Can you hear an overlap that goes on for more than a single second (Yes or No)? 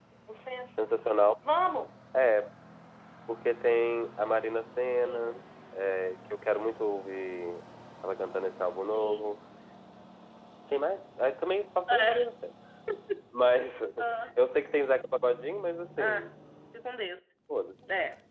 No